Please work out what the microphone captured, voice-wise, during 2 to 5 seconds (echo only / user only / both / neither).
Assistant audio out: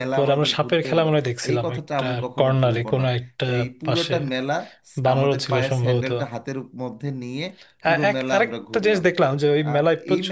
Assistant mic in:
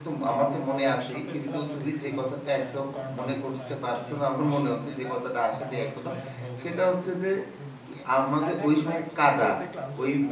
both